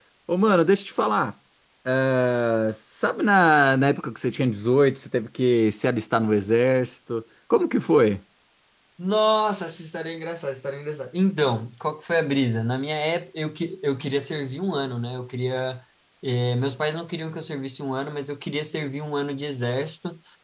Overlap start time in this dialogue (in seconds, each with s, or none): none